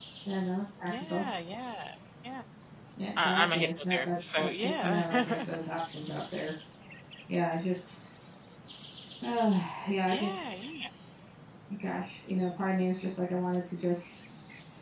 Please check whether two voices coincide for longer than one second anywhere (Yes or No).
Yes